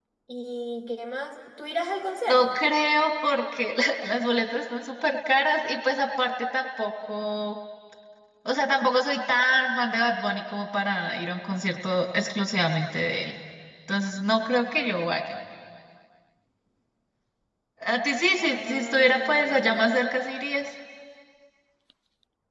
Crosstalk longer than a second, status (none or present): present